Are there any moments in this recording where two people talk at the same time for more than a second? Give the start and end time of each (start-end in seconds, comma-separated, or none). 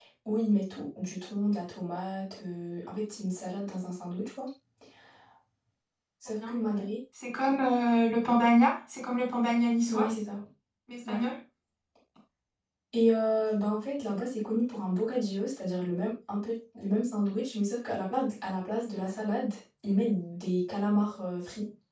none